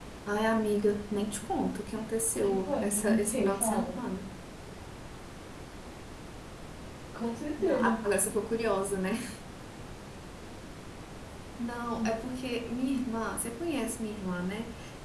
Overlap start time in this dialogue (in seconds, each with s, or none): 2.4 s